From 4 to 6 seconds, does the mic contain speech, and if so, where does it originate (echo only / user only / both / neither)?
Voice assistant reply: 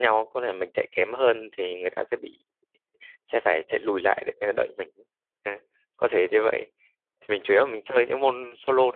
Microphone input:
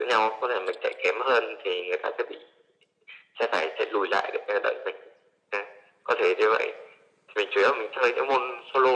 echo only